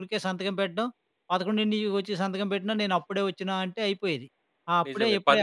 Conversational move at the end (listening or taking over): taking over